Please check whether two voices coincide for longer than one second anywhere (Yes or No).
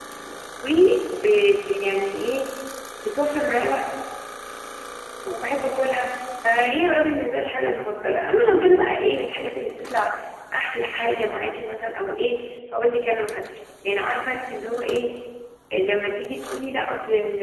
No